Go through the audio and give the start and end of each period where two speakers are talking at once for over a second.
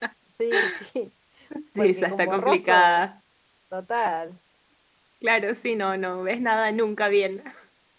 1.8-3.1

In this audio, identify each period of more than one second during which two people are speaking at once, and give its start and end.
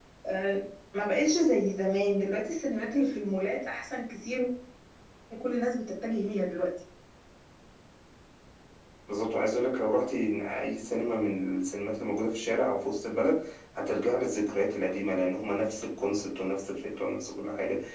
none

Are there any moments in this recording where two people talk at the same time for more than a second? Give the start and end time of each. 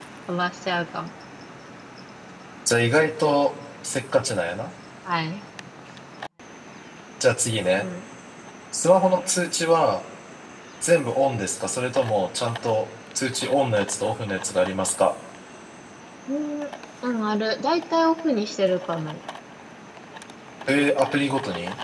none

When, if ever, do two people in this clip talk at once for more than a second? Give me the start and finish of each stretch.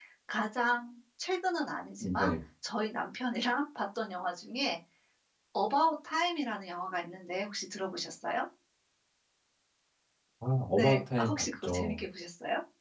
10.7-12.1

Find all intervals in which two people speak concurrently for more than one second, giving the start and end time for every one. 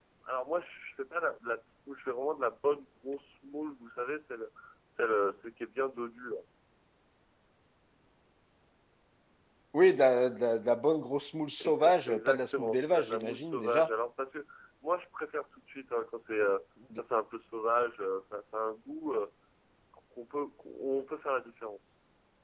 11.6-13.9

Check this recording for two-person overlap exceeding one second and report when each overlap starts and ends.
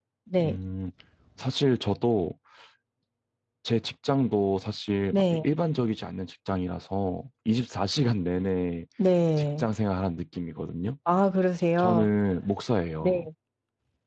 none

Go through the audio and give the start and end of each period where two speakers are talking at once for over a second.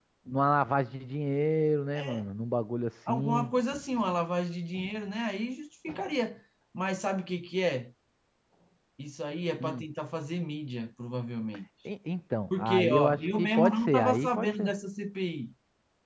12.6-14.7

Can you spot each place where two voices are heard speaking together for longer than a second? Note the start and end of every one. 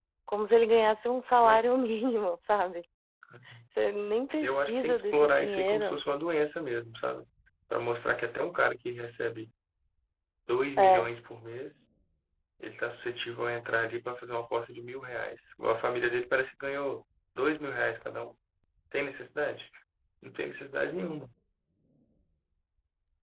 4.4-6.0

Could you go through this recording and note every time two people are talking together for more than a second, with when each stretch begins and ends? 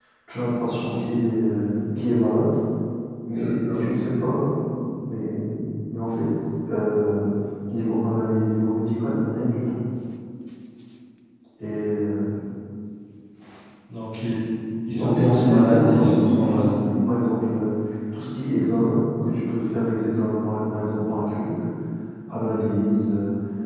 14.9-16.8

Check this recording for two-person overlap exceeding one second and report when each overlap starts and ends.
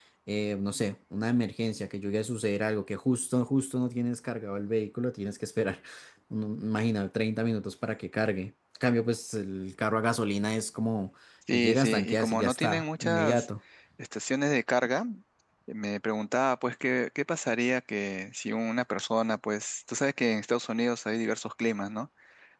11.5-13.5

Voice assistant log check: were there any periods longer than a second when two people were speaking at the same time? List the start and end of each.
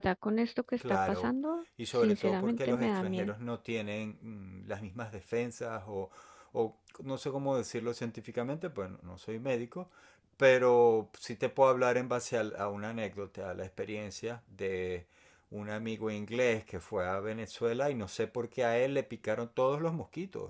1.9-3.3

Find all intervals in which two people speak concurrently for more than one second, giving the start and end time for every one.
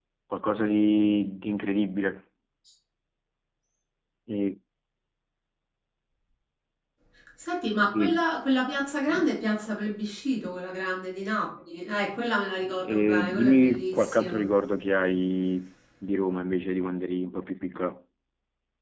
12.8-14.4

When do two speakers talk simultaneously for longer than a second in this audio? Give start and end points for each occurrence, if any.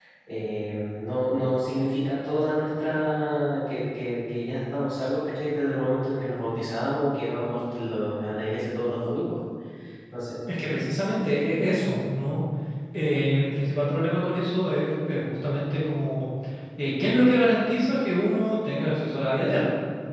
none

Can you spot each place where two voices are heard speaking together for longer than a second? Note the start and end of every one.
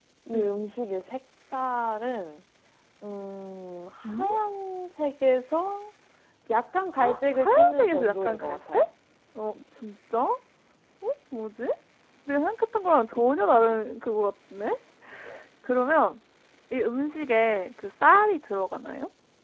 7.4-8.8

